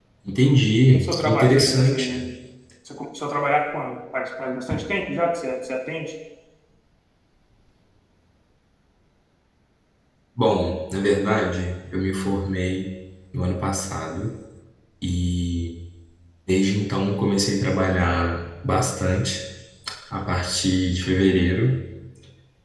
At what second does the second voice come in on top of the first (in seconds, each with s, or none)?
0.9 s